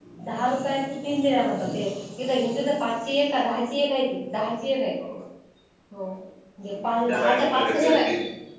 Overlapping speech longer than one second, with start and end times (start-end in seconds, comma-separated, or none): 6.7-8.1